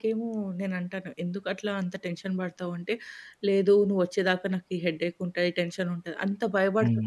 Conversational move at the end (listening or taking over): taking over